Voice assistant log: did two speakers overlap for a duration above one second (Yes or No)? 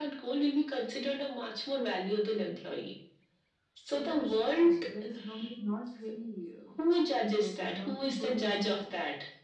Yes